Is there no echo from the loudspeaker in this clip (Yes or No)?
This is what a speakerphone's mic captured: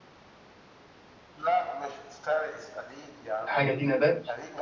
No